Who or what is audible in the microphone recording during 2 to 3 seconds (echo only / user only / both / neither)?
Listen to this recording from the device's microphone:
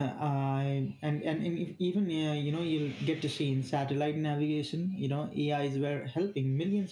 echo only